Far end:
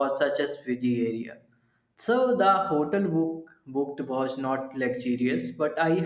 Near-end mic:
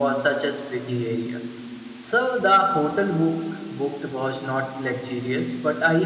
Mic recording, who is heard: echo only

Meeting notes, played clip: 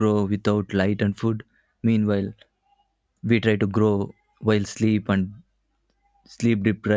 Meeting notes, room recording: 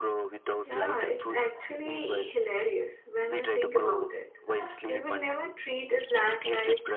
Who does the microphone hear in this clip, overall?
both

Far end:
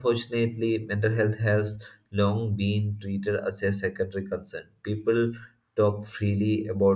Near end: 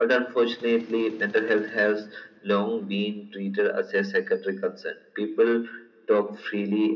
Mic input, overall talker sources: echo only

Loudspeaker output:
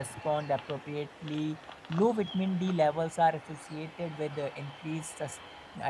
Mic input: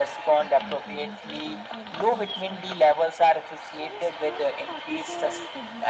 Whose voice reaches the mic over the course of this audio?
both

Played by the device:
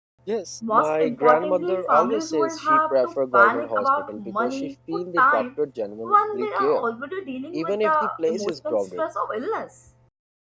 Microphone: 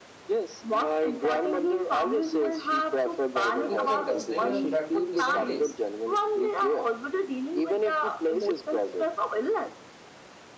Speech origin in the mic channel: both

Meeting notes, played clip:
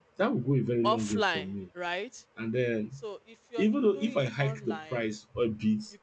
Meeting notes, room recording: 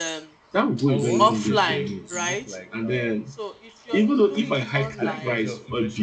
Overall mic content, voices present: both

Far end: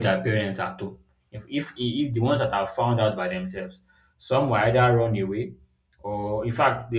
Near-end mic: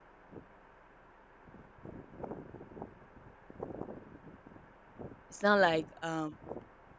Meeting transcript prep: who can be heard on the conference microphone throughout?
user only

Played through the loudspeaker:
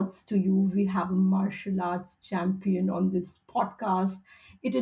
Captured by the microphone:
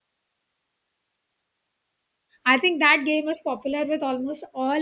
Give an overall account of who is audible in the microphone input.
user only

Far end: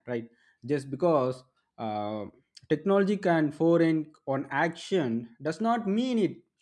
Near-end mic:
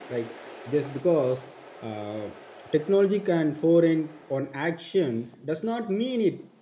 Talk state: echo only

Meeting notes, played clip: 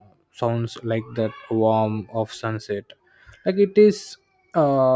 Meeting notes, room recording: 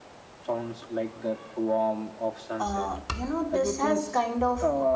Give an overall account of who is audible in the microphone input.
both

